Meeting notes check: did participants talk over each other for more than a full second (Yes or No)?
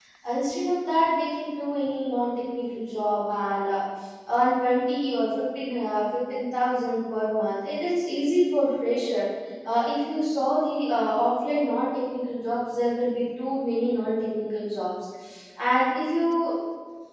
No